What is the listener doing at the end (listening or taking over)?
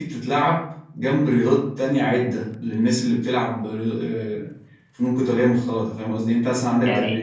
listening